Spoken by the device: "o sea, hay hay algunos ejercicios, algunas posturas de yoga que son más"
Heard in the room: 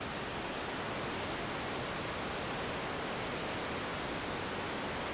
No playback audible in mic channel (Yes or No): Yes